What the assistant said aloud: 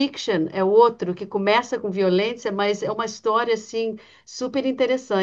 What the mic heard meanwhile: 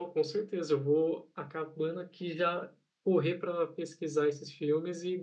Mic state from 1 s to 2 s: user only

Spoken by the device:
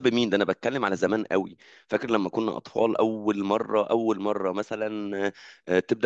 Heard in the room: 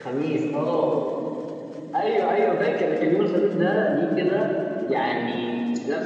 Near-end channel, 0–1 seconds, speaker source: user only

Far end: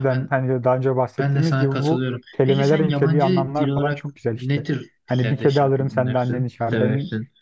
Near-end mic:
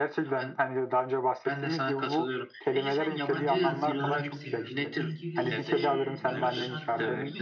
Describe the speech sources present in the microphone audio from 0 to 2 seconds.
echo only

